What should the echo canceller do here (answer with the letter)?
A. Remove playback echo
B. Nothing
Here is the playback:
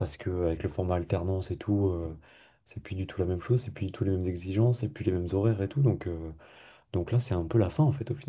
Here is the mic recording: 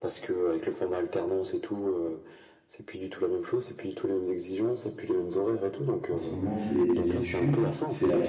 A